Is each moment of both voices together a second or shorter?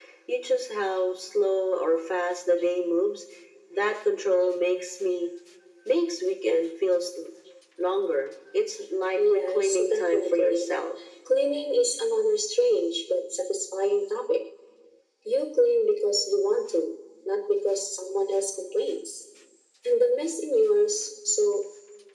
No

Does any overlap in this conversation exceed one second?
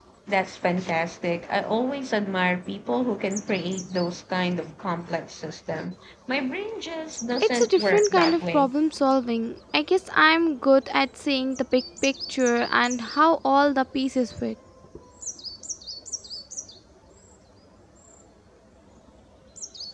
Yes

